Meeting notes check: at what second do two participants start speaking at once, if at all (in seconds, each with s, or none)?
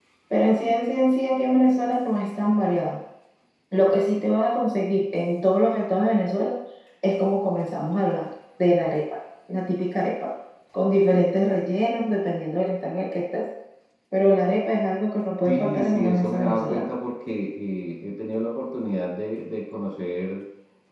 15.4 s